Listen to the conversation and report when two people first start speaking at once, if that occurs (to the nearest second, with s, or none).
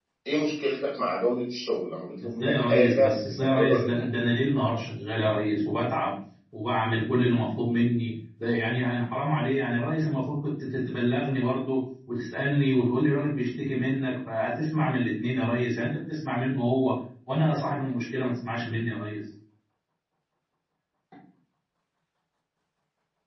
2 s